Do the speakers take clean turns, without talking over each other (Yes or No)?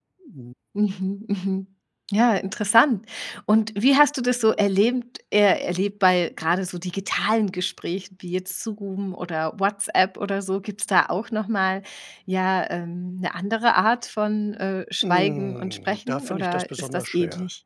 No